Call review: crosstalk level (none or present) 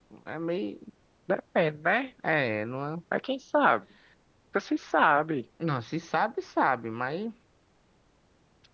none